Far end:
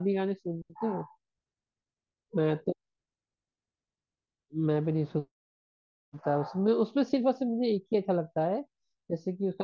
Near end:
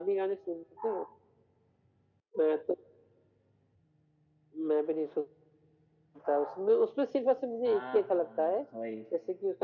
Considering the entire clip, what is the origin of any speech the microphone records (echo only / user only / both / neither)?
both